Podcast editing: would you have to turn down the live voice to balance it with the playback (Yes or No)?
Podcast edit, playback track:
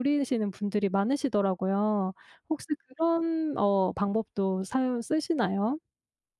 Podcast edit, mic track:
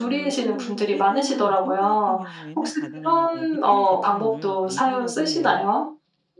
No